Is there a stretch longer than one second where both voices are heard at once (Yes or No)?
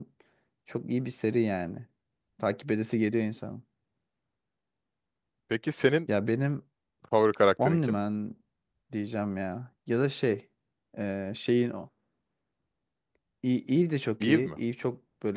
No